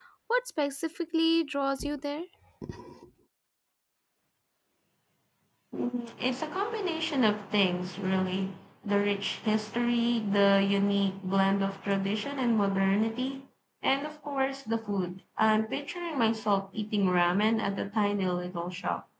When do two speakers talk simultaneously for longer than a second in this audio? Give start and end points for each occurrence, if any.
none

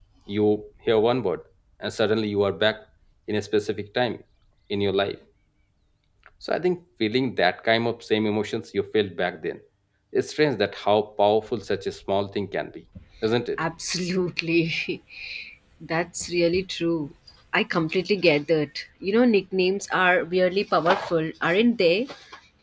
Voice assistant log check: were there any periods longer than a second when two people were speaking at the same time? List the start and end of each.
none

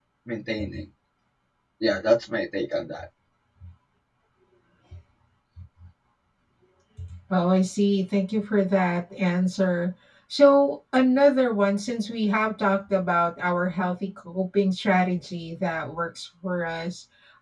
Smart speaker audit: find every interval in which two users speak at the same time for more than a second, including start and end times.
none

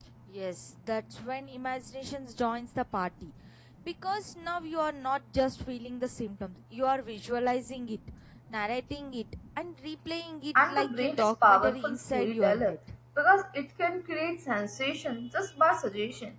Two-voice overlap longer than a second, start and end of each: 10.7-12.8

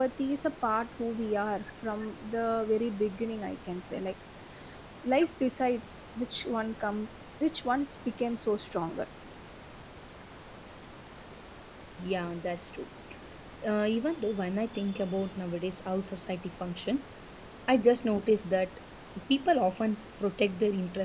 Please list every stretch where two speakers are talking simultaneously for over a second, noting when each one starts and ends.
none

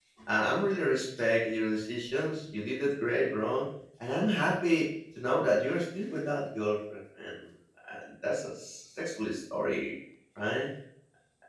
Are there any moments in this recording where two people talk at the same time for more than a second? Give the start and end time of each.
none

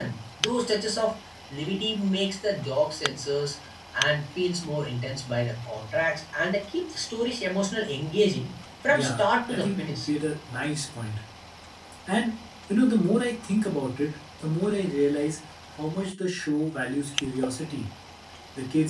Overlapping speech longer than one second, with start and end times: 8.9-10.1

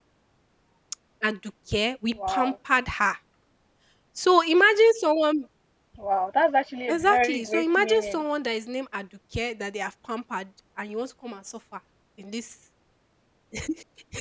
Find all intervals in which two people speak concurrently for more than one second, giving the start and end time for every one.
6.9-8.2

